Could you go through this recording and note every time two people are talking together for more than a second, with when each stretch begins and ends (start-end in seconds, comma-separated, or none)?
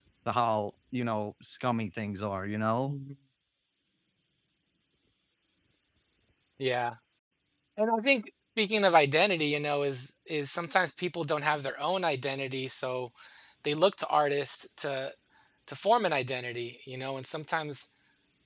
none